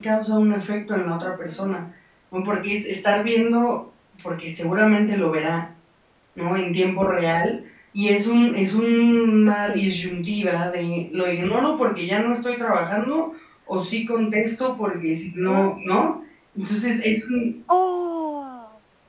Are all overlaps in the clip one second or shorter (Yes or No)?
Yes